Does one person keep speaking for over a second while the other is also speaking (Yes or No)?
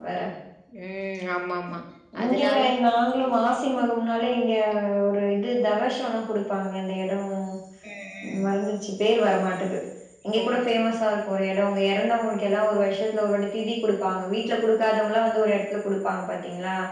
No